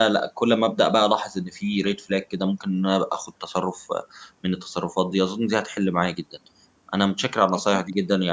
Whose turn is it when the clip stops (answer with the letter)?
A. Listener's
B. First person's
B